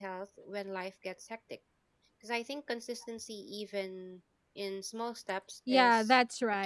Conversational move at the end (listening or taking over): taking over